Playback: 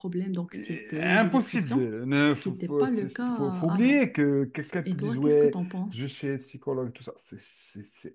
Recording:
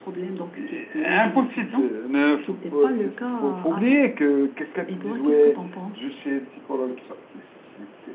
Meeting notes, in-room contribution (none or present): none